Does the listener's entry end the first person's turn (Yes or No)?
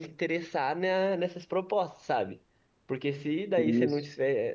No